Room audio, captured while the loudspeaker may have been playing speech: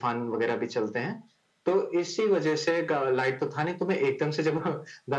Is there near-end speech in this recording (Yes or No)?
No